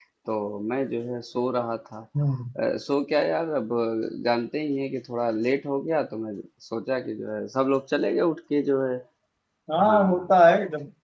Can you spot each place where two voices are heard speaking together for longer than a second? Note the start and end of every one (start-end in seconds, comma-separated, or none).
none